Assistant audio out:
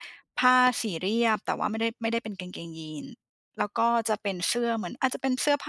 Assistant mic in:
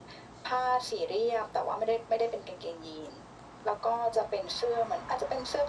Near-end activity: none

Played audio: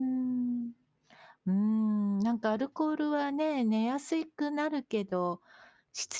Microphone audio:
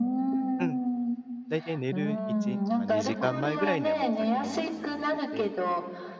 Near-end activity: present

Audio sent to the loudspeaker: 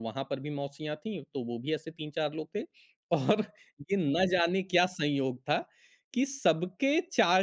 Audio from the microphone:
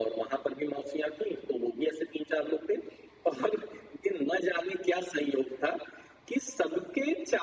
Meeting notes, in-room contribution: none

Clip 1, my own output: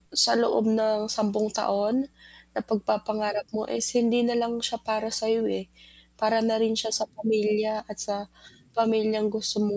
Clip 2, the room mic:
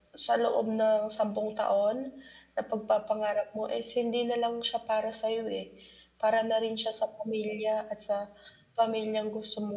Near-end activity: none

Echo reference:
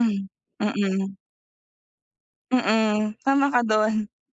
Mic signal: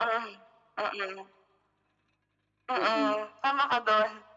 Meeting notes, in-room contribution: present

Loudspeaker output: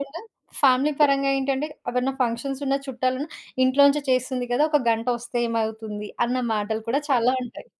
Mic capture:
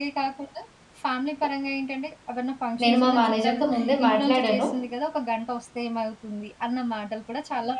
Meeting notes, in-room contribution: present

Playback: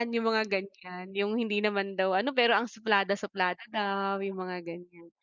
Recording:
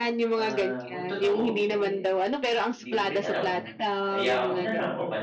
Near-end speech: present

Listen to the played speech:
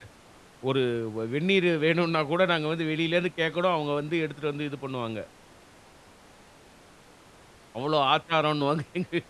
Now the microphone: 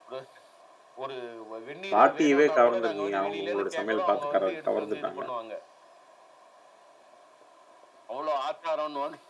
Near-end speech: present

